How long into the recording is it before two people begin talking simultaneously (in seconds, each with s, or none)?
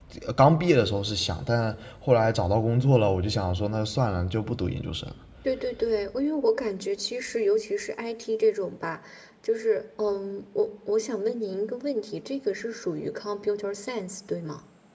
none